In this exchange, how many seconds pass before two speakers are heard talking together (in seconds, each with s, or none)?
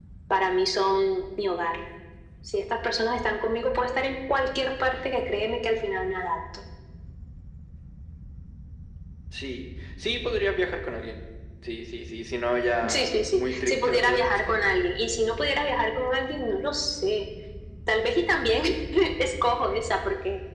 12.8 s